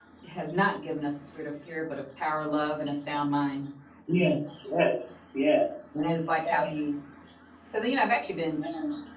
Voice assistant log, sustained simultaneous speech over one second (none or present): none